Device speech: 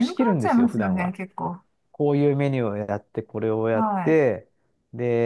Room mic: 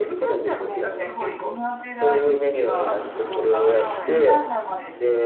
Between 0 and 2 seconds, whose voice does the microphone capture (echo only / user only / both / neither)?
both